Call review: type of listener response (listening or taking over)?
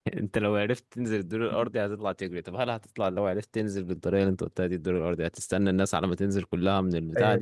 taking over